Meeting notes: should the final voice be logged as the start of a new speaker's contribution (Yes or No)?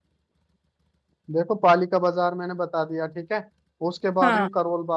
No